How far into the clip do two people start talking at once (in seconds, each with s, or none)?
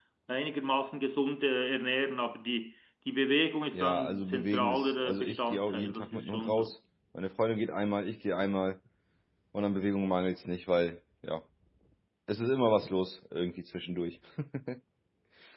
3.7 s